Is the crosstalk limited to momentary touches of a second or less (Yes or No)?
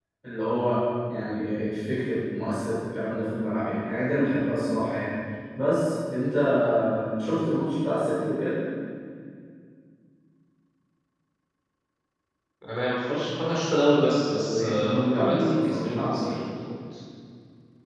No